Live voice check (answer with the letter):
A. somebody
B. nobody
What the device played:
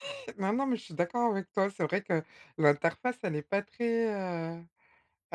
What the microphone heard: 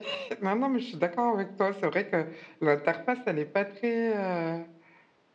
B